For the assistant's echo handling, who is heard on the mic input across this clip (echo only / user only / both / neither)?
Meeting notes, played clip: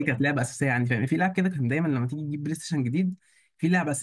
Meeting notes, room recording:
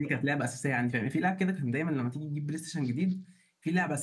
echo only